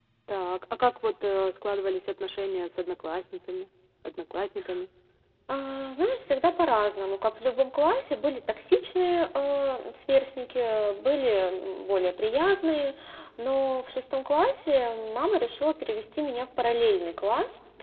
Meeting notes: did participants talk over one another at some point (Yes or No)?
No